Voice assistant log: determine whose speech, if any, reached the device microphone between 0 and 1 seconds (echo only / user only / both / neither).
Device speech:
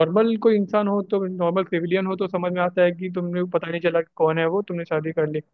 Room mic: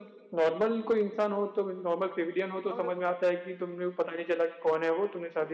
echo only